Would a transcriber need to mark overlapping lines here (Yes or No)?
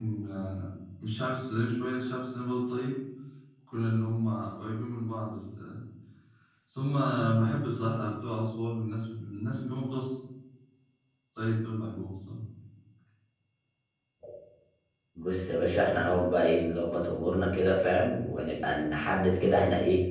No